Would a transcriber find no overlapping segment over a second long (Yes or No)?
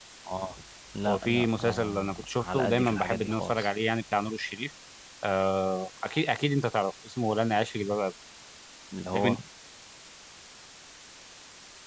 No